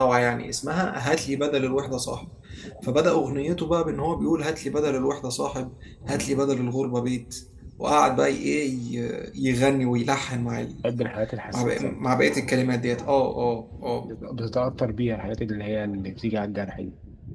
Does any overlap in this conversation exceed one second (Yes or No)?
No